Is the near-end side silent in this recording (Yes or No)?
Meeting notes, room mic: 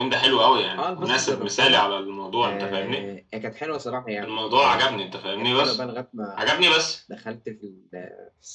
No